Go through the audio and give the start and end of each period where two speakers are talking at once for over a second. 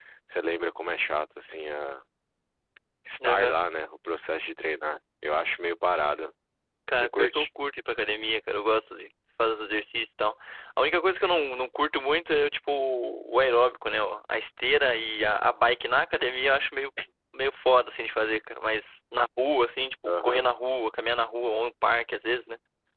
none

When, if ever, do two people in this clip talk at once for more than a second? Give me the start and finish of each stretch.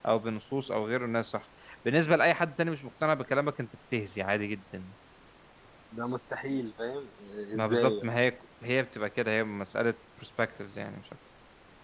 none

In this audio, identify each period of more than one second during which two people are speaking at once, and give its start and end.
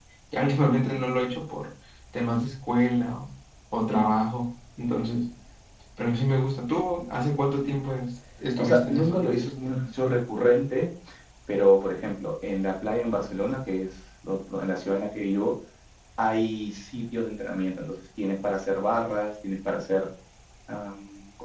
8.6-9.8

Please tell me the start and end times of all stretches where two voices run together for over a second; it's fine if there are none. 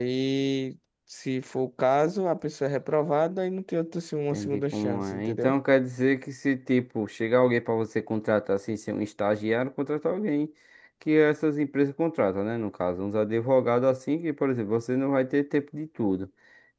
4.3-5.5

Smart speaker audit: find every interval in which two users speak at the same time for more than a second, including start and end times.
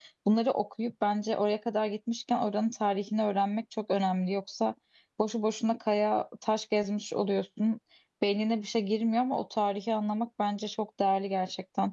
none

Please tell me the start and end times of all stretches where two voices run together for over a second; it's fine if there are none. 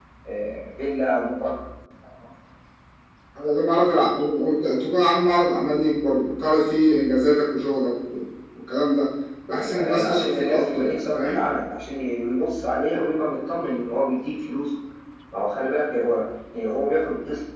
9.6-11.4

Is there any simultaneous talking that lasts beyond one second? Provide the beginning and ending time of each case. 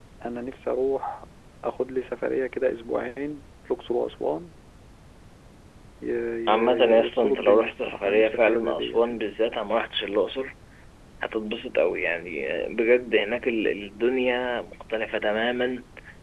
6.5-9.2

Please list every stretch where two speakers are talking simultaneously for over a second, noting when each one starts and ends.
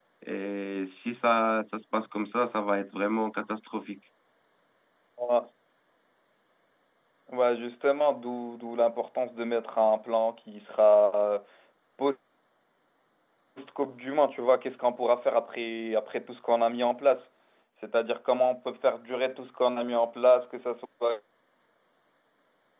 none

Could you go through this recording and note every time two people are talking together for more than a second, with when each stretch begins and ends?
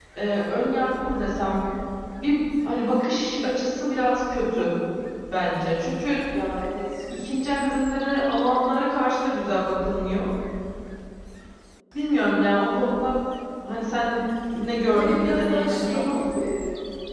14.9-16.2

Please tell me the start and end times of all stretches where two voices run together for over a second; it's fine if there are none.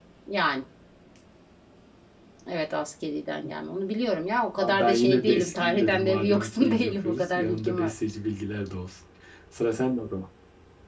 4.6-7.9

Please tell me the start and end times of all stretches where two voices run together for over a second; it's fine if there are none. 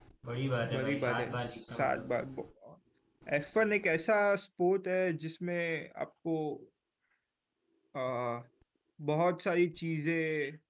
0.7-2.1

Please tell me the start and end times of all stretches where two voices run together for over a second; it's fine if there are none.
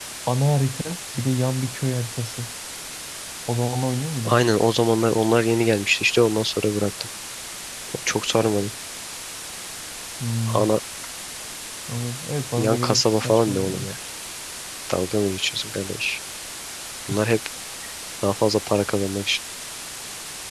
12.6-13.9

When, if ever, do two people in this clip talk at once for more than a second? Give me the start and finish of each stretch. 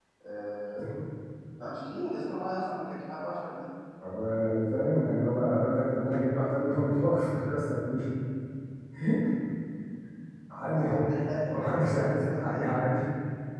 11.5-12.7

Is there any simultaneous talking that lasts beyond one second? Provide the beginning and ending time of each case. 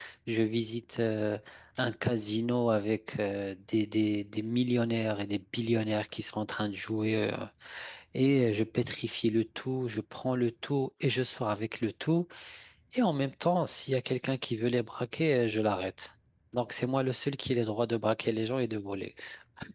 none

